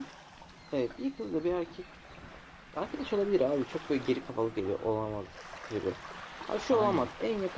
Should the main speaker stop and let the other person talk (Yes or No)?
No